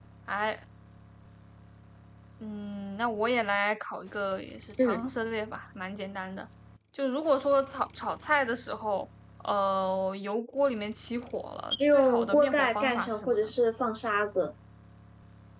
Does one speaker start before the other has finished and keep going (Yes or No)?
Yes